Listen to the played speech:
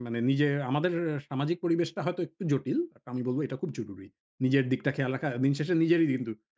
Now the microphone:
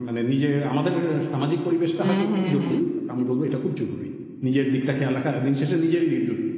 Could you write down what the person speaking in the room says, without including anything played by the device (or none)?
হ্যাঁ, হ্যাঁ, হ্যাঁ।